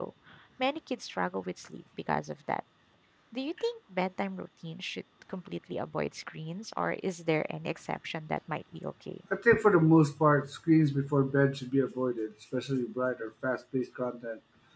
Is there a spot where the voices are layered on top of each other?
No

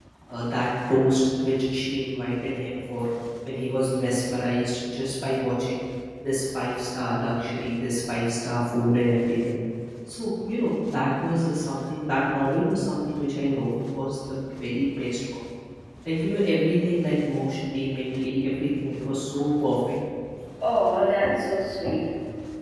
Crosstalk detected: No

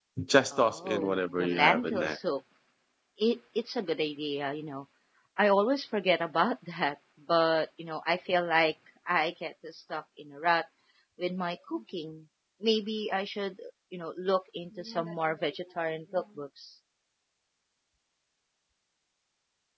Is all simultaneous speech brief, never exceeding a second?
No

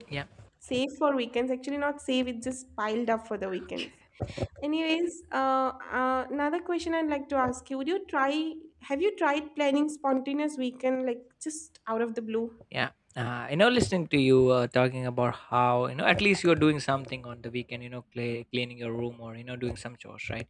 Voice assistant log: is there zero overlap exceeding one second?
Yes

